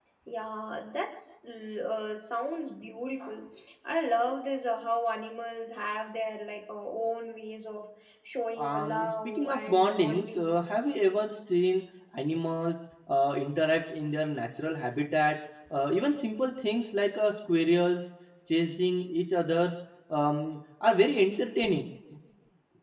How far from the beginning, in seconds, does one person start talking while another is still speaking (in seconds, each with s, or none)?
8.6 s